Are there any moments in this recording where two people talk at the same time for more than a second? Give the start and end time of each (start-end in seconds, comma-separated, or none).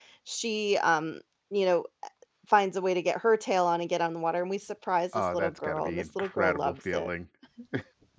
5.3-7.1